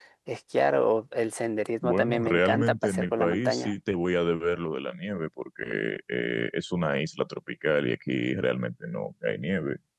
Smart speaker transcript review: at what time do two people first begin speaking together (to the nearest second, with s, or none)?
2 s